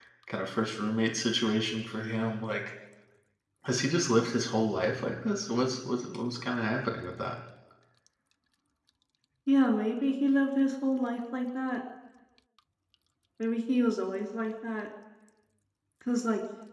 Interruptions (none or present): none